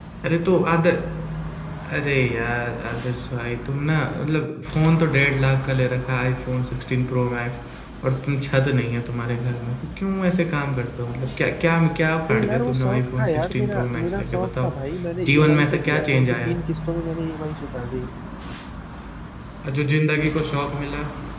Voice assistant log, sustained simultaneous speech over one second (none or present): present